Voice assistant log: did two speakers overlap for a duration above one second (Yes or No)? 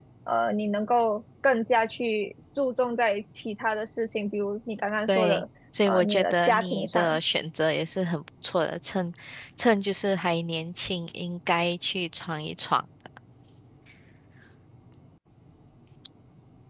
Yes